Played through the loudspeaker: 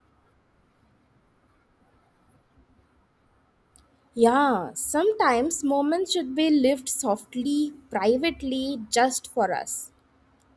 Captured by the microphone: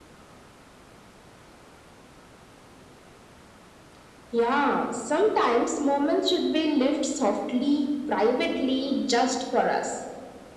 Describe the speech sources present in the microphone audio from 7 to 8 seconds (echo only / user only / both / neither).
echo only